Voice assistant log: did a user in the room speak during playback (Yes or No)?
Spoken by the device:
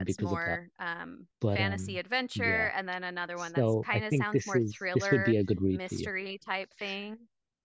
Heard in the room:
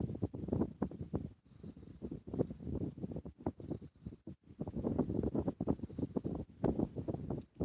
No